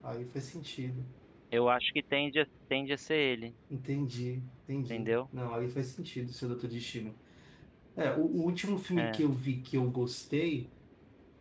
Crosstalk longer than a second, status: none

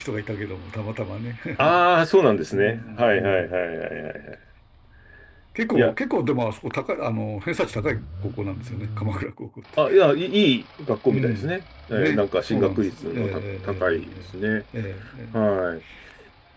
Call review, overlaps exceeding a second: present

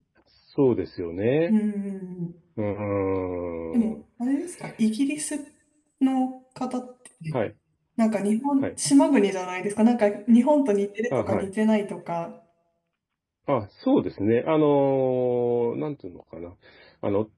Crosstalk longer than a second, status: none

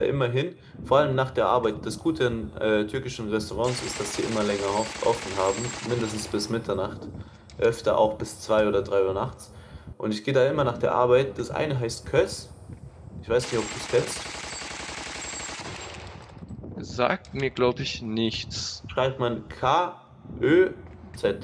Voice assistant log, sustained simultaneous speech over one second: none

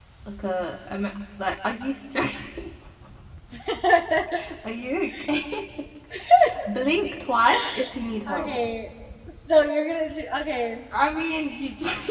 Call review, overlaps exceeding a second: none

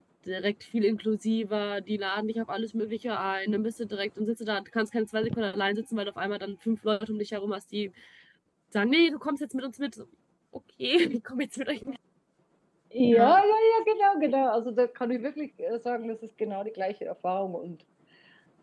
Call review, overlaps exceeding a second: none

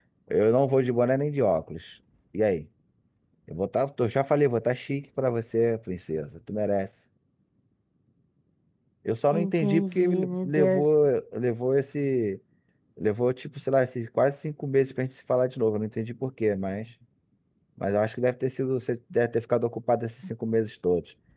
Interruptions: present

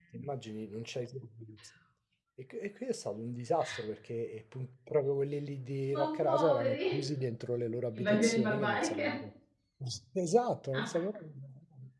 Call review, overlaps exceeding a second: present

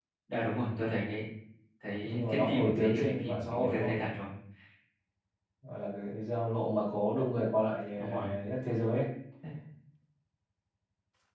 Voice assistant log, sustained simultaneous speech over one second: present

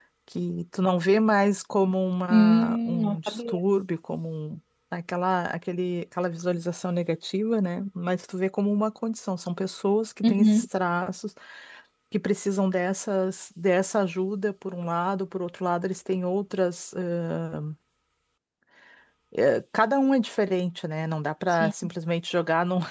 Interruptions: present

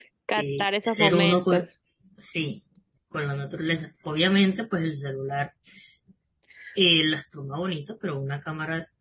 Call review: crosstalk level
present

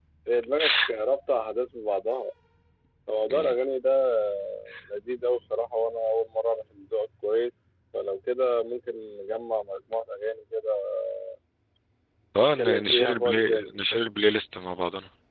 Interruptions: present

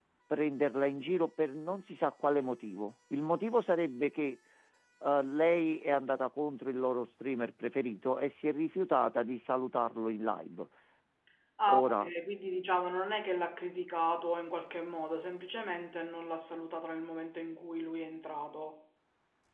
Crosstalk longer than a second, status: none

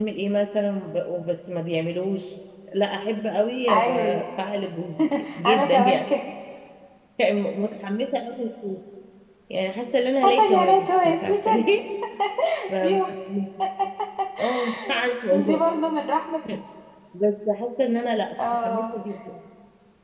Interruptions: present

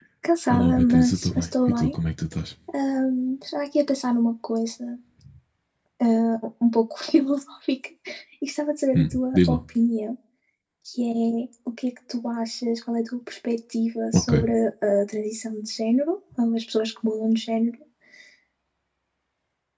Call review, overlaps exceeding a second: present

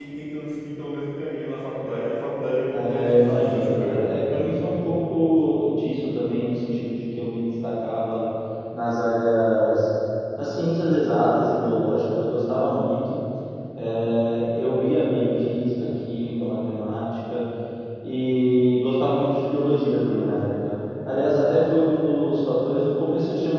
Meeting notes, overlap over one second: present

